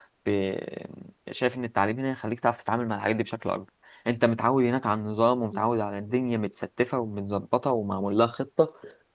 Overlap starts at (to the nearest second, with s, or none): none